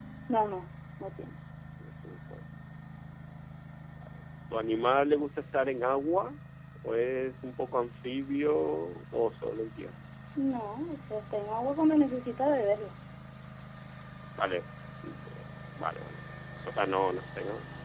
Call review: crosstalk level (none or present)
none